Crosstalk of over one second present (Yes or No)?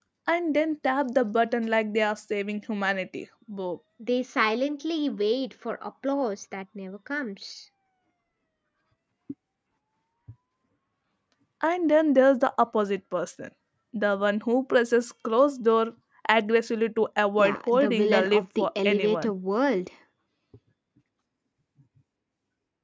Yes